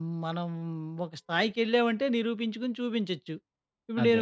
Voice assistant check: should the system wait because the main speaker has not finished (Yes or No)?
Yes